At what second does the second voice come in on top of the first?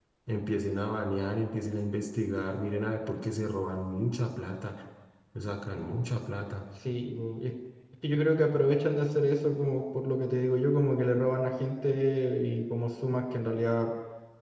none

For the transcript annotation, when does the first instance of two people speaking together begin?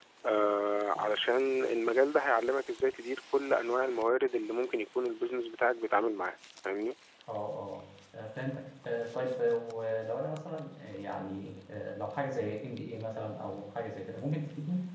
none

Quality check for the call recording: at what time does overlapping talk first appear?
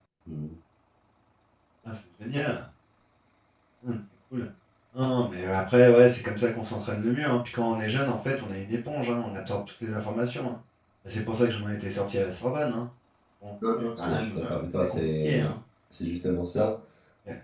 13.8 s

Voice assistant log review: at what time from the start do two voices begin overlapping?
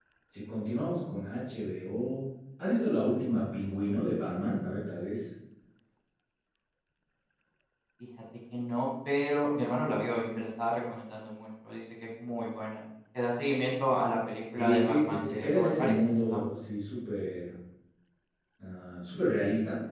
14.6 s

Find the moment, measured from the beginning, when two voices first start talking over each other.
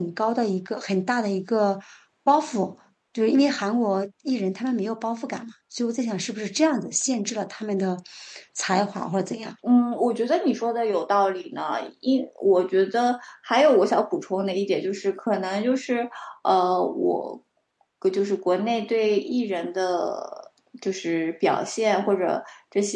none

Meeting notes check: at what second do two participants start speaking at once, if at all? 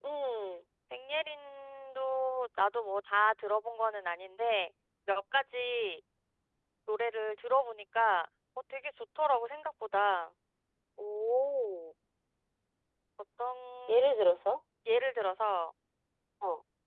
none

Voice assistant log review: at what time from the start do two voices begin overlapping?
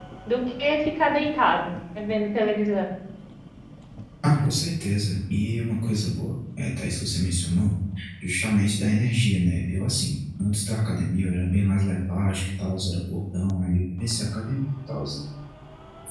none

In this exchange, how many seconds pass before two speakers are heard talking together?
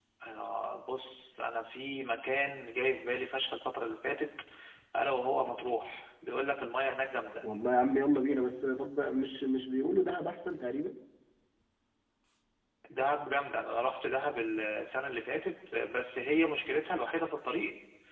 none

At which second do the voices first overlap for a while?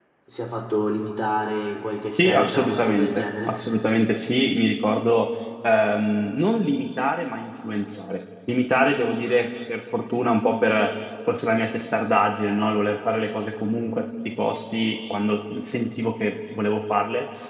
2.2 s

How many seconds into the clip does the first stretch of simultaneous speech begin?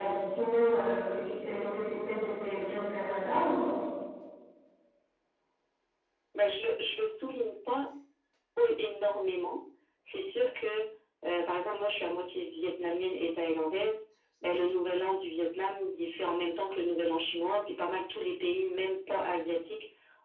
none

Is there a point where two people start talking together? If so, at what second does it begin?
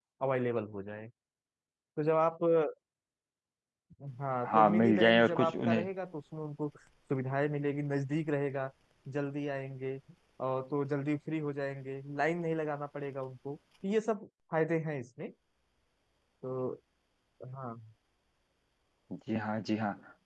4.5 s

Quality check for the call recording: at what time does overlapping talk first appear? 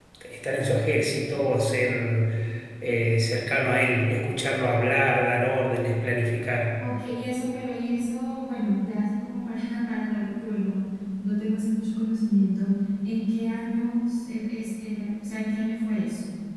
none

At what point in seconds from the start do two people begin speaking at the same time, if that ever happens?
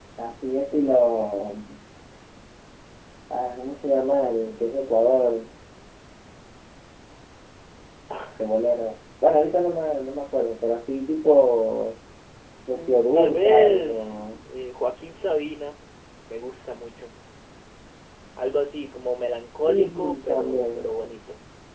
12.7 s

